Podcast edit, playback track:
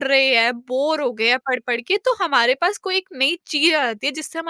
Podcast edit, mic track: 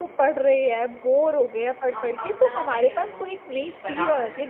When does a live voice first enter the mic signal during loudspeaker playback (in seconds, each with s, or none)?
1.9 s